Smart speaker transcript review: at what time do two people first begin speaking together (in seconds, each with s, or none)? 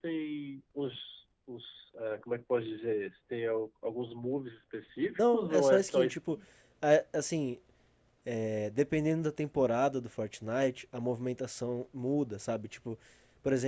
5.2 s